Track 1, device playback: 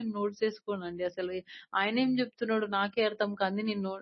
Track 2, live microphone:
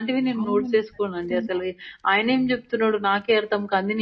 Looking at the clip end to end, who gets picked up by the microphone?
both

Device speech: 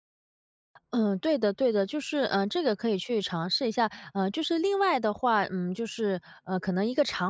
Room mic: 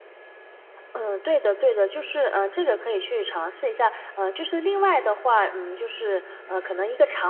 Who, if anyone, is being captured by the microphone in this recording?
both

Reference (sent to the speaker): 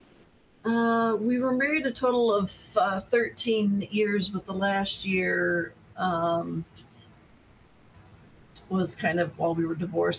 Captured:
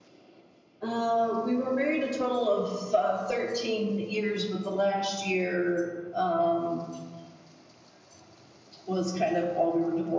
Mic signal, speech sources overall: echo only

